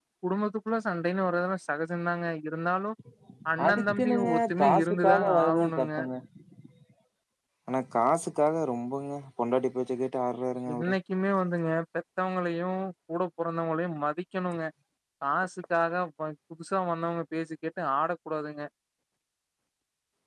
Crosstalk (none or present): present